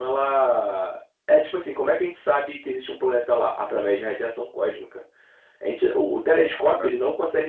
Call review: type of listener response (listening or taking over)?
listening